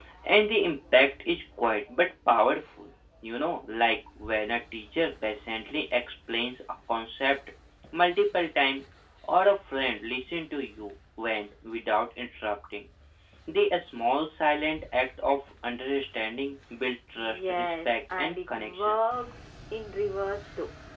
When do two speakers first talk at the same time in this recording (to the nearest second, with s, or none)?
17 s